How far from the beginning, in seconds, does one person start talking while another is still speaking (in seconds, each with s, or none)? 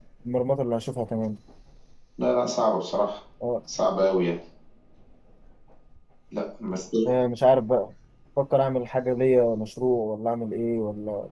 none